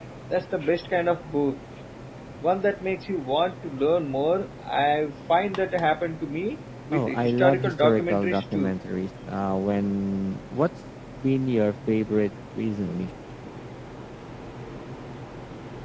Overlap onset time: 6.9 s

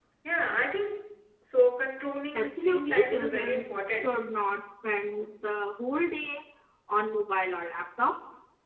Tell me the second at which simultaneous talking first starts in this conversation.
2.3 s

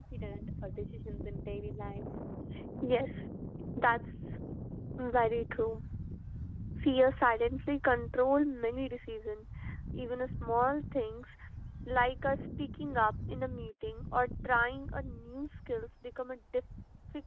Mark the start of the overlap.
none

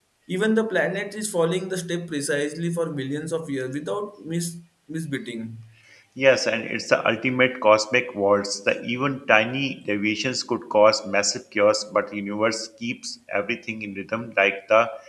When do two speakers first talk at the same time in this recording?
none

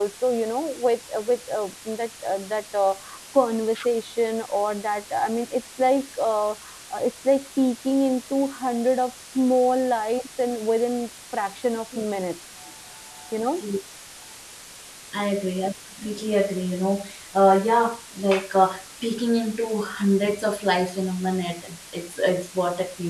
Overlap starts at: none

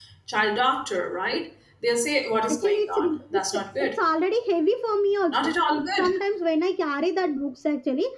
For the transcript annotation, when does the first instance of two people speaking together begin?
2.5 s

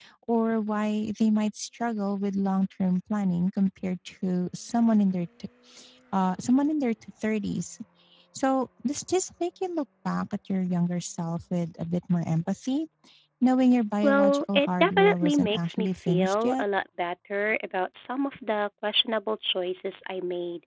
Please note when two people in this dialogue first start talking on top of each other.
14.0 s

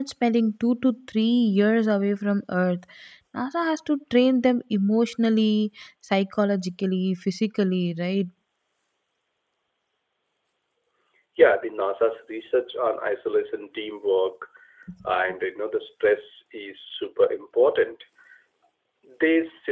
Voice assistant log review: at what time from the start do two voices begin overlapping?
none

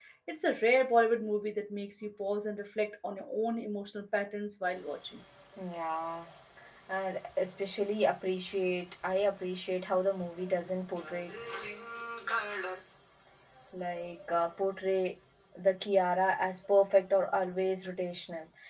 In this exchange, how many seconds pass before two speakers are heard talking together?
none

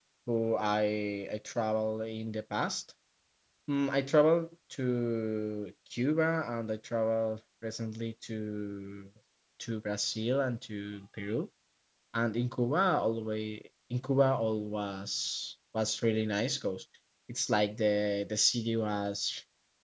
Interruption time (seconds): none

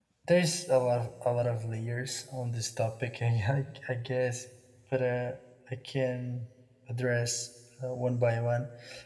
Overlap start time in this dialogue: none

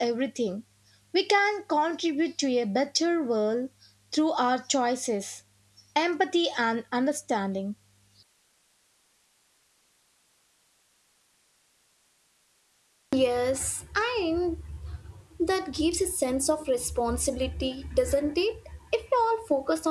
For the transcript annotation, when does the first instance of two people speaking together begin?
none

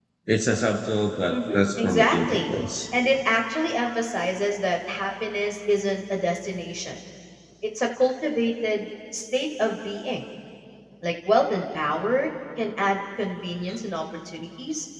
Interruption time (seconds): 1.3 s

